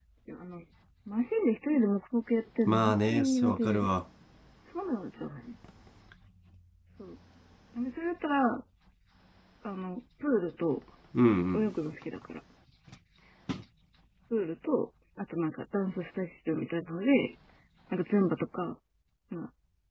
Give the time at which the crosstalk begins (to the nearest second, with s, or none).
3 s